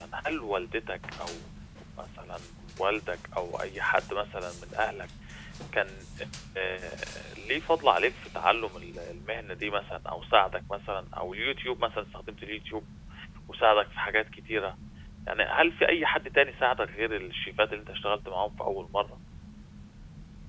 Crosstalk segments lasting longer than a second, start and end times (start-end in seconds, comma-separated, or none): none